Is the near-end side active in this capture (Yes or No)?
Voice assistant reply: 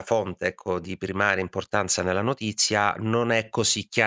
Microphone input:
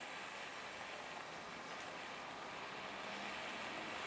No